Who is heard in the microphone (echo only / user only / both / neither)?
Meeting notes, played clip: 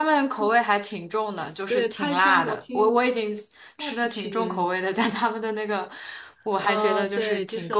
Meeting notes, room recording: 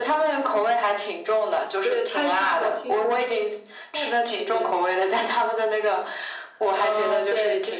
echo only